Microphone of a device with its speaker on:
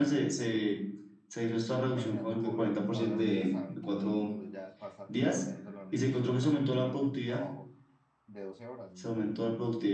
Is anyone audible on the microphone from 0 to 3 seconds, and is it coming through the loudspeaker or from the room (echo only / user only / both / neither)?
both